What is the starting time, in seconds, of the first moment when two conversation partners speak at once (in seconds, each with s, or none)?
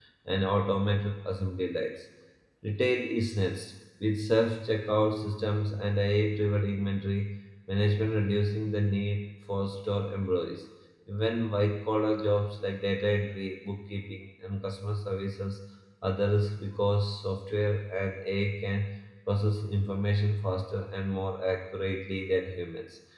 none